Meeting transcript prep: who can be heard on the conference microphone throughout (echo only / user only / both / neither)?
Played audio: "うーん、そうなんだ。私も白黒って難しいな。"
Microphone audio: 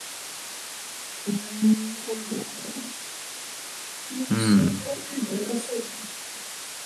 both